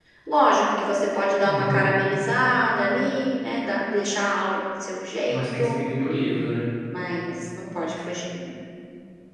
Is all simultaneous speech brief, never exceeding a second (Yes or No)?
Yes